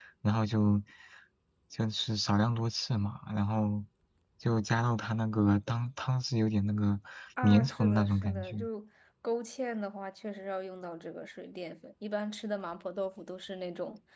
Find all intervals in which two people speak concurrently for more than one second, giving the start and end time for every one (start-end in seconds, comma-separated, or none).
7.4-8.7